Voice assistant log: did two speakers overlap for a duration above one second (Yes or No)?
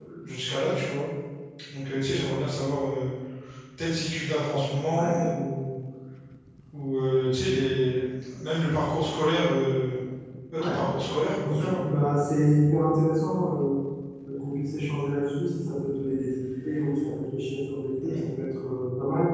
No